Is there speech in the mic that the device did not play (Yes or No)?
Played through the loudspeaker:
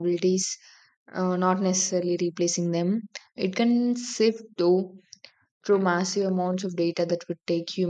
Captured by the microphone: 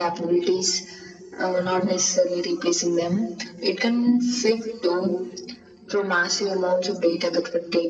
No